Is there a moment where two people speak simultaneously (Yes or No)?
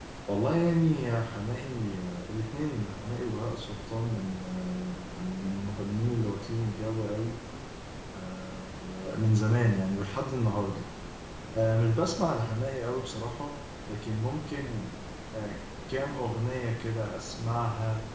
No